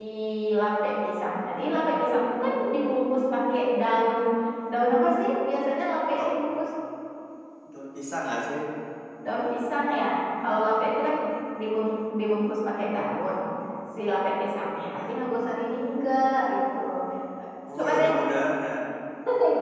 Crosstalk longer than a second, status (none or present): none